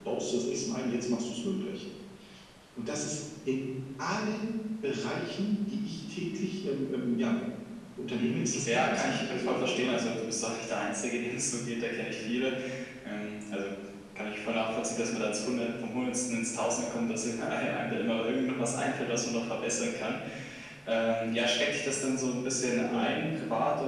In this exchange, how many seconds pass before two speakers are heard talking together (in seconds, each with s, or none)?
8.2 s